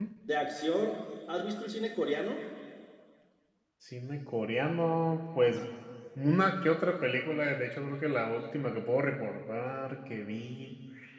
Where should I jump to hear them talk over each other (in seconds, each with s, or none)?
none